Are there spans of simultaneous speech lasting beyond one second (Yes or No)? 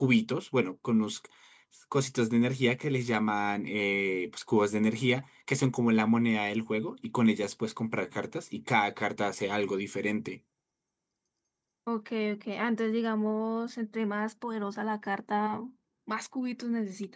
No